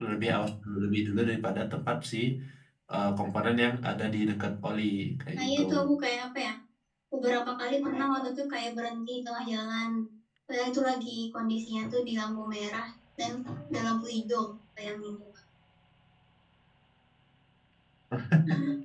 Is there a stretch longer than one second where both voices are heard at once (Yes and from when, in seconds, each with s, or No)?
No